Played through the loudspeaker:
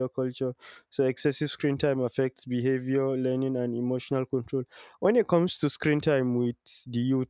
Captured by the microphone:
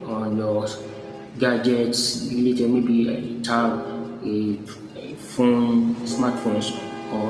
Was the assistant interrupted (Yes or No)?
Yes